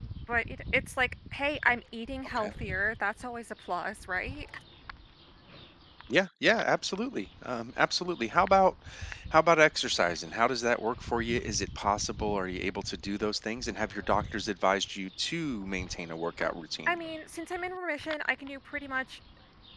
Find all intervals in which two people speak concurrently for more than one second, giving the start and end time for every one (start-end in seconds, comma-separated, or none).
none